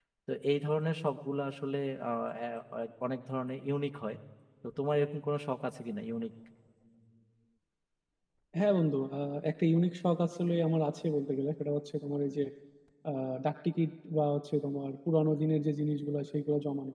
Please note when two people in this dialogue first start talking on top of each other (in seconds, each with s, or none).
none